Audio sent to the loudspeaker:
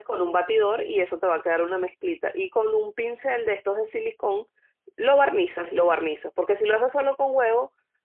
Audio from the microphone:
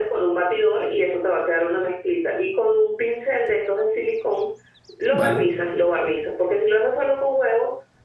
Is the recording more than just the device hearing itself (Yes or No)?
Yes